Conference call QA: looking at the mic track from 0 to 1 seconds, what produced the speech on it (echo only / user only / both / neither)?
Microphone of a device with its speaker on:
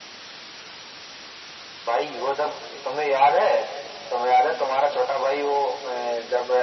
neither